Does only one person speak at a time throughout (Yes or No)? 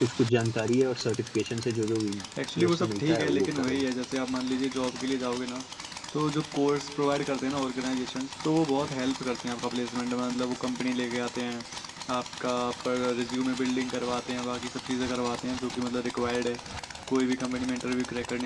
No